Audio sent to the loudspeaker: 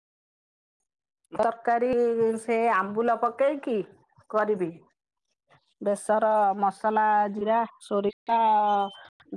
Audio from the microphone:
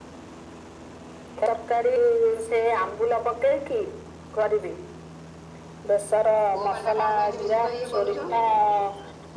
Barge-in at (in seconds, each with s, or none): 6.5 s